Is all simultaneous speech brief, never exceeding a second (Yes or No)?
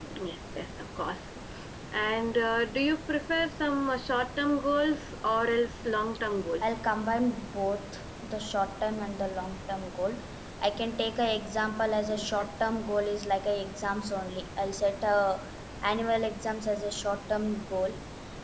Yes